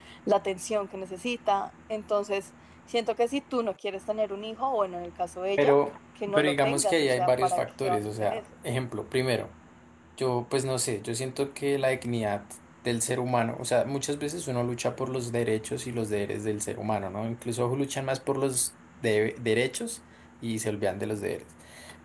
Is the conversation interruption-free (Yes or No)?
No